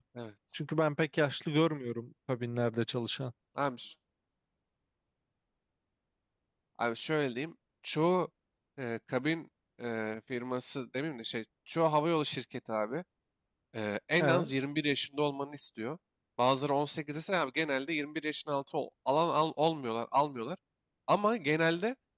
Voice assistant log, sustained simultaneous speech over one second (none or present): none